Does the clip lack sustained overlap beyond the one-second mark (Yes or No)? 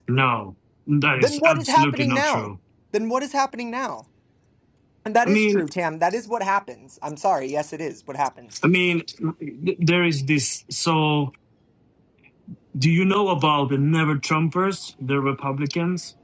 No